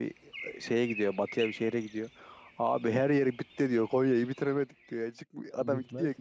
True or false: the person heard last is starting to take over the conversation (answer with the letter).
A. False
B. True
A